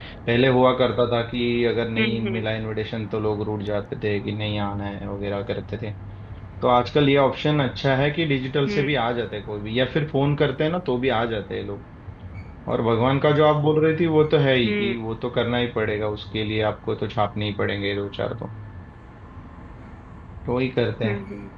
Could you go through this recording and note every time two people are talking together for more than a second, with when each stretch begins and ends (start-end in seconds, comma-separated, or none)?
none